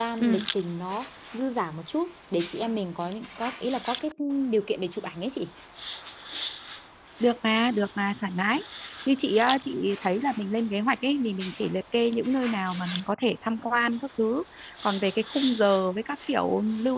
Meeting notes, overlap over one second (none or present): none